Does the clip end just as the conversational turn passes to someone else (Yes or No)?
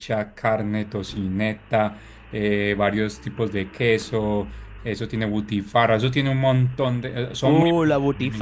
Yes